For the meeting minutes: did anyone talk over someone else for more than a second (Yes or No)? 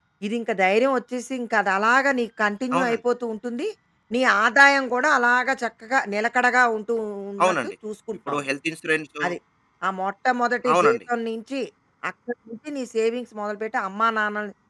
No